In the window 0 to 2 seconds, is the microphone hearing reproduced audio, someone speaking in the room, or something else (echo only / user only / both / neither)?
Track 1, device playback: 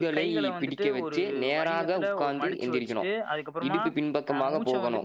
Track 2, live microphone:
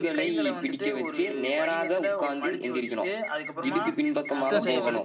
echo only